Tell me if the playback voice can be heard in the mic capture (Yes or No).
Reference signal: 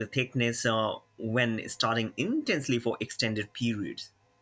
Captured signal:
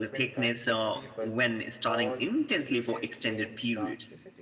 Yes